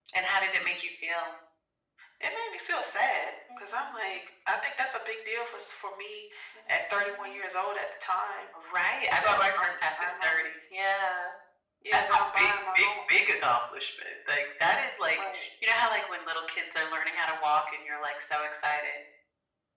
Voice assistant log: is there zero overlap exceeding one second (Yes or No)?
No